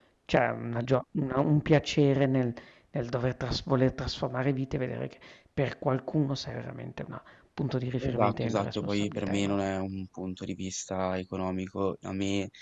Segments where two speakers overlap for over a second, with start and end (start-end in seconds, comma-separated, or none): 8.0-9.8